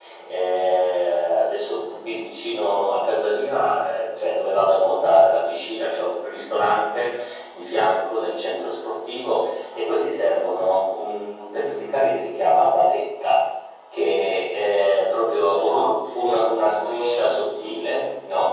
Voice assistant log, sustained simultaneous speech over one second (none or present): present